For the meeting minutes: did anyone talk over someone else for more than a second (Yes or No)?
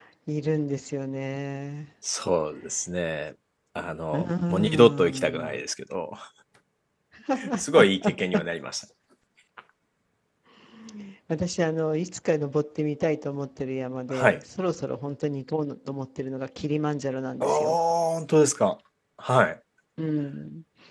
Yes